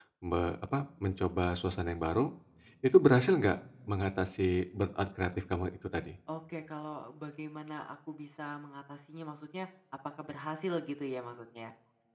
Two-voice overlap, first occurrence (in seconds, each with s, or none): none